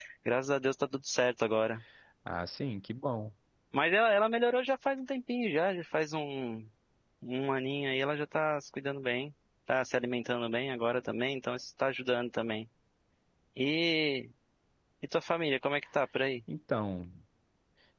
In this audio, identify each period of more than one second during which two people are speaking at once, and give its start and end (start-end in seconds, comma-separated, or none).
none